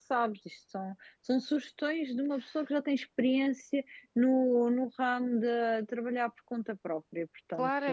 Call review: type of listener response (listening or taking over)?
taking over